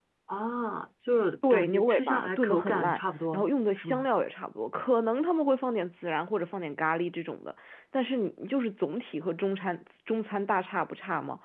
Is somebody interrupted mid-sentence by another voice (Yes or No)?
Yes